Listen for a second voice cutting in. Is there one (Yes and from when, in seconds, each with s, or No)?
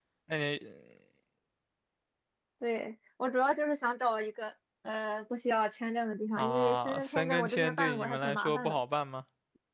Yes, from 6.4 s